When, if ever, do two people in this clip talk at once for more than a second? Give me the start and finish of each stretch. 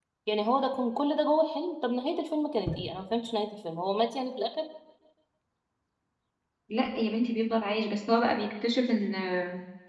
none

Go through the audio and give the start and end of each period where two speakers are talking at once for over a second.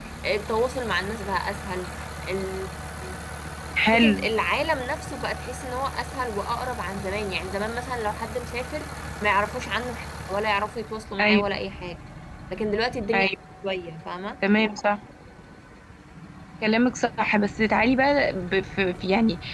none

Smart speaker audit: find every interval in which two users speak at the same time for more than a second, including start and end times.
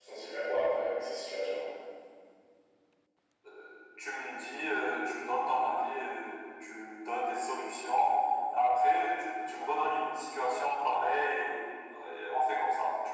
none

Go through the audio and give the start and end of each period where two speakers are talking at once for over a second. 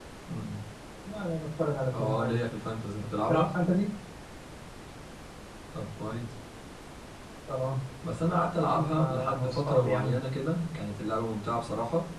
8.9-10.2

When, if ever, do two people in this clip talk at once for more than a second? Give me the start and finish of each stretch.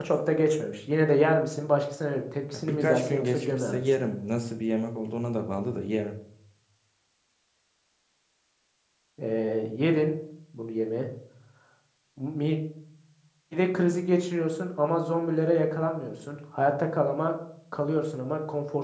2.5-4.1

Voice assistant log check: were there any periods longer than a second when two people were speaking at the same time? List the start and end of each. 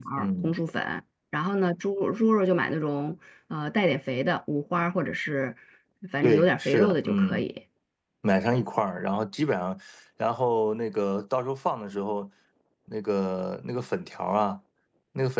6.2-7.4

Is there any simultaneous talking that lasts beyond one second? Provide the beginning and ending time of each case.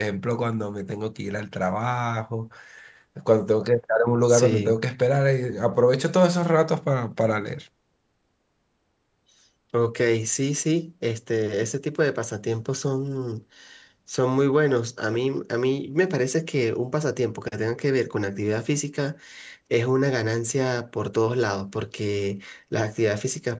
none

